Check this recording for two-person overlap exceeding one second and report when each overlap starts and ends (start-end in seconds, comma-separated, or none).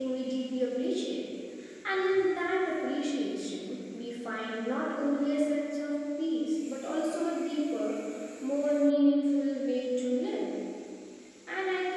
none